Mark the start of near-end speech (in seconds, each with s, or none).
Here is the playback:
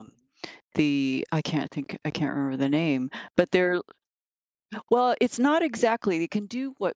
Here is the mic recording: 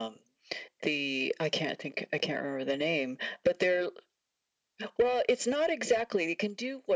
none